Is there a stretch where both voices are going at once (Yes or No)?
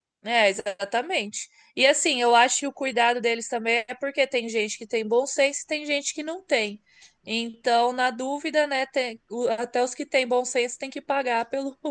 No